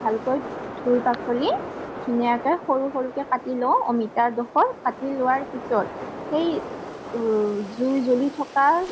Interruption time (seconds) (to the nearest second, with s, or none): none